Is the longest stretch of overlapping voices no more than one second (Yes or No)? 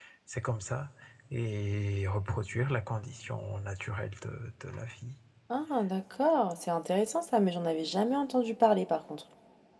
Yes